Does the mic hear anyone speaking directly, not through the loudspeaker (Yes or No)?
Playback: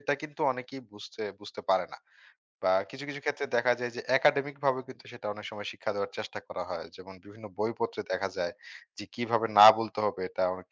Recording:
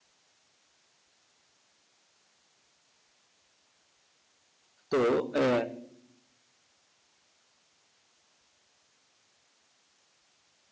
Yes